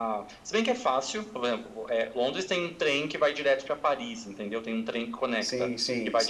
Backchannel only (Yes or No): No